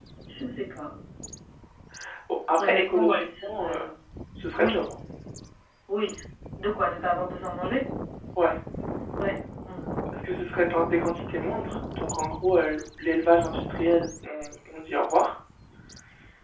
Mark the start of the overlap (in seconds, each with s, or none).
2.6 s